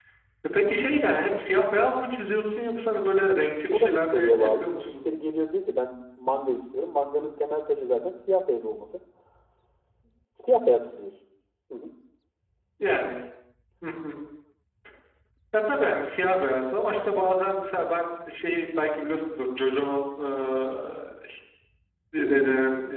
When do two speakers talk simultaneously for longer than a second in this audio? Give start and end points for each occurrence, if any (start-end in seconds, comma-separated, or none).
3.7-5.1